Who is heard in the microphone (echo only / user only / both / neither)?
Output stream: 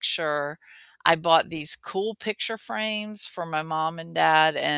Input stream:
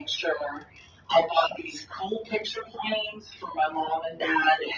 echo only